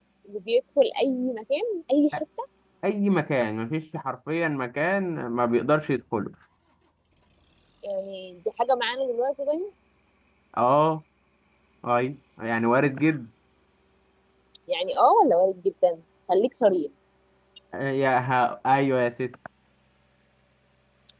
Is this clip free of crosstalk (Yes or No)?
Yes